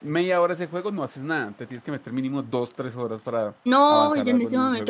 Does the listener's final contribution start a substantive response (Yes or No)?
Yes